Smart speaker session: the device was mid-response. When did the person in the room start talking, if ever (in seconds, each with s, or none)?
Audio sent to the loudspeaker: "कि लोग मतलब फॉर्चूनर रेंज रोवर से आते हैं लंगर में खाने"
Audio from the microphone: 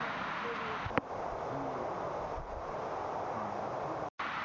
none